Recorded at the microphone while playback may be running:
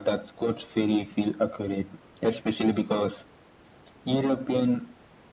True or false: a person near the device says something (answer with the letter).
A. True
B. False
B